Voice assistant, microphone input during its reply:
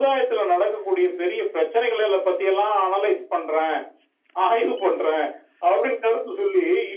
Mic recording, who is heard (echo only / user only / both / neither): echo only